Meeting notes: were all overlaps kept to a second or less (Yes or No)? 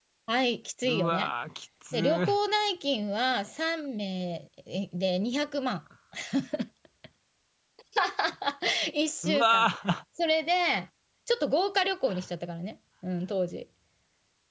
Yes